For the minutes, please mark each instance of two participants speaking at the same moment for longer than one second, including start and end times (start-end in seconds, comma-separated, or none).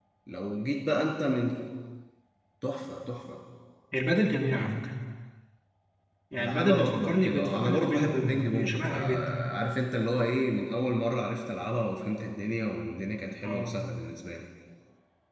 6.4-9.4